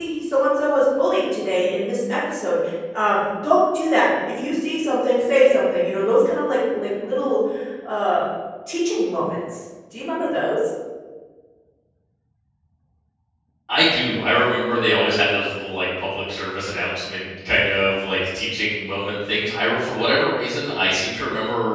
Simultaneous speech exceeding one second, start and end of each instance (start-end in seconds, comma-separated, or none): none